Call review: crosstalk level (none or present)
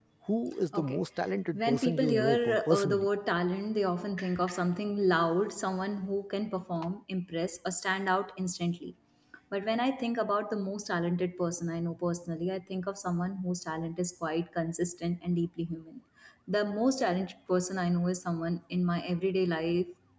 present